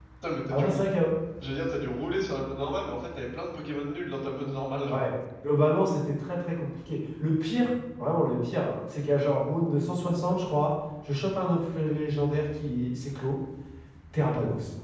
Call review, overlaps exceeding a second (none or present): none